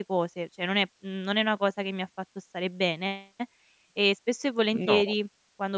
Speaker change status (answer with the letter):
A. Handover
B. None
B